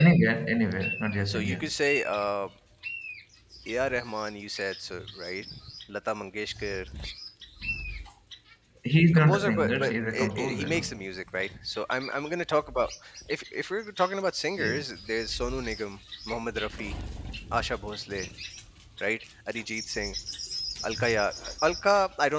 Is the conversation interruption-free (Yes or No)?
No